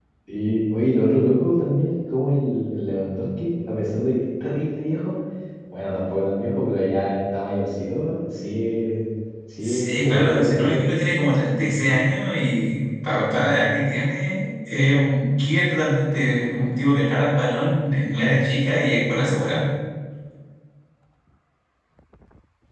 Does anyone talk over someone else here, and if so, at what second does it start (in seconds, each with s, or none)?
9.6 s